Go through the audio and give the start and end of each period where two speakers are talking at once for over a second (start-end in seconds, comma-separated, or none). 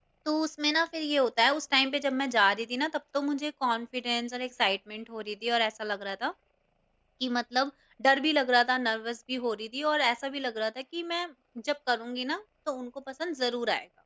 none